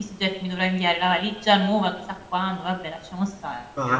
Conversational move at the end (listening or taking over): taking over